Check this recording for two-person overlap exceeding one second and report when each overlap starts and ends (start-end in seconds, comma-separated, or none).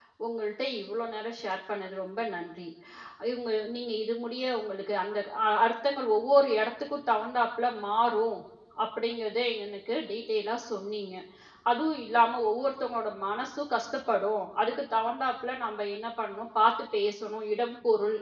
none